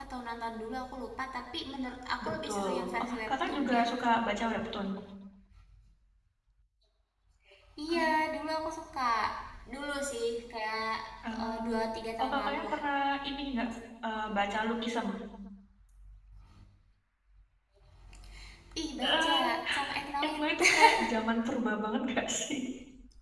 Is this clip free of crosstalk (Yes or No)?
No